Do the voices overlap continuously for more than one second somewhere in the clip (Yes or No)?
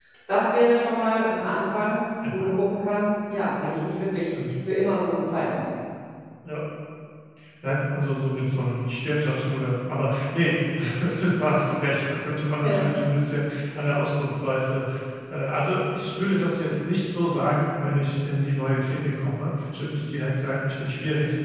No